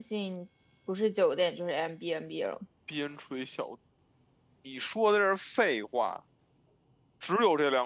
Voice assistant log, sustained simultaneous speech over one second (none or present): none